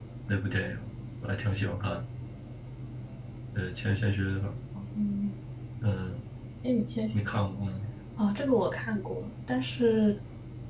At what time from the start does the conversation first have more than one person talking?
none

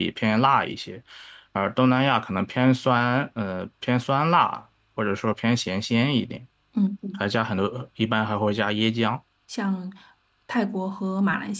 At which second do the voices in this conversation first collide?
none

